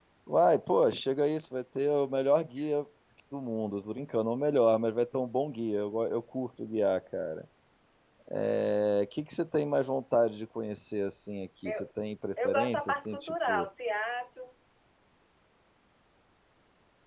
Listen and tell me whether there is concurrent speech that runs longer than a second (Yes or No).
Yes